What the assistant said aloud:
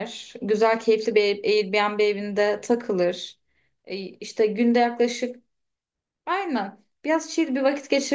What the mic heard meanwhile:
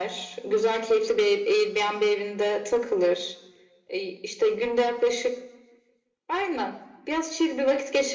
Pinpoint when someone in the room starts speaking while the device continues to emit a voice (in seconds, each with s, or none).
none